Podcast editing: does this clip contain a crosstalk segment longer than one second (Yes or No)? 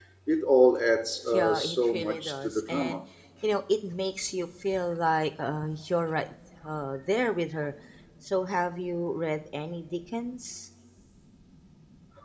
Yes